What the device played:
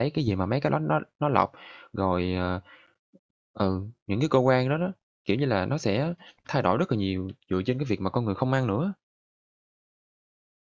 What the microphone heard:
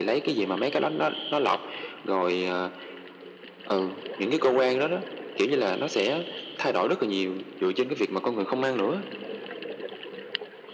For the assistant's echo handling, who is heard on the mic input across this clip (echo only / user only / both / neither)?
echo only